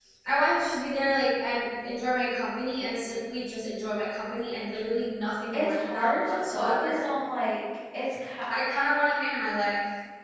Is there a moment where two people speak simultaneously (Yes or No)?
Yes